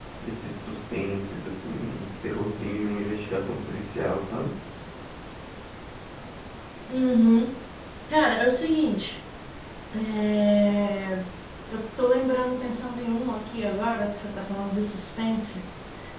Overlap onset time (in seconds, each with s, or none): none